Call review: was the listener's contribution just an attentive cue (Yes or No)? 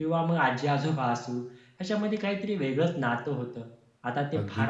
Yes